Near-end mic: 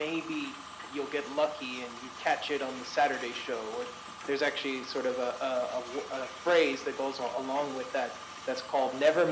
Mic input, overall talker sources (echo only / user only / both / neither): echo only